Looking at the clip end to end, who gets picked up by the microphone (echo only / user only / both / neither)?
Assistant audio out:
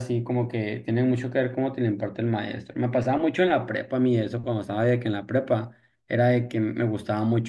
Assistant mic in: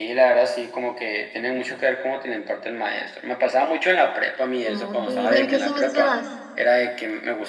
both